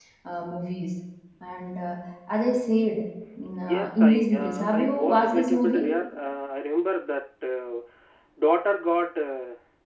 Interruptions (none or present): present